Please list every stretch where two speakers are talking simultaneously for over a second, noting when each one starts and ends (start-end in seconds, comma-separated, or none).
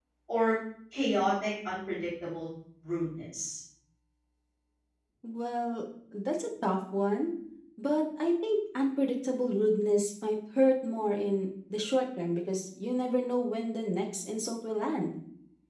none